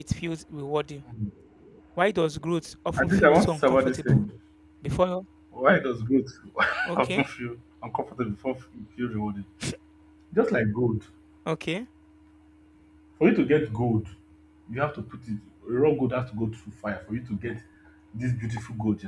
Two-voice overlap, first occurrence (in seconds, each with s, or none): 3.0 s